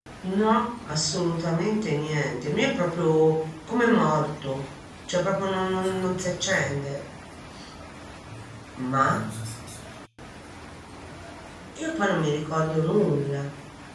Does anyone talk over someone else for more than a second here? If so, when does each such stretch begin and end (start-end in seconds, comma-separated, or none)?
5.4-6.7